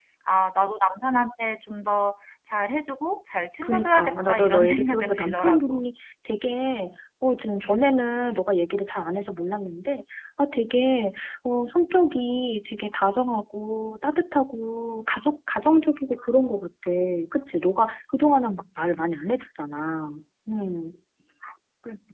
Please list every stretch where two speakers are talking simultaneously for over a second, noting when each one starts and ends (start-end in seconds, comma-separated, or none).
3.6-5.8